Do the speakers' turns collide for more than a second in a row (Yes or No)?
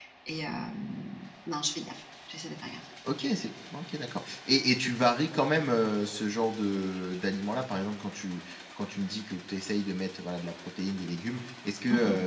No